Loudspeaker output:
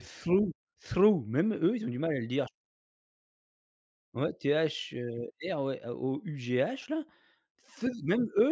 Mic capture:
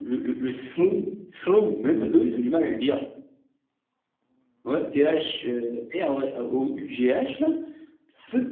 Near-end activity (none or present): none